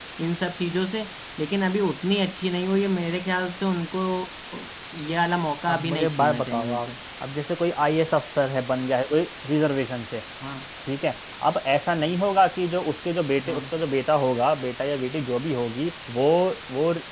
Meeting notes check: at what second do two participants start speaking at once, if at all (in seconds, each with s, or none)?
5.7 s